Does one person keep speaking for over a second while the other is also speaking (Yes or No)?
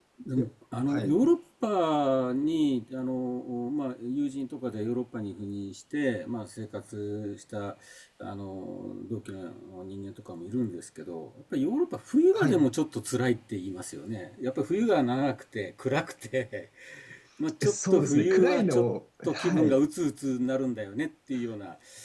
Yes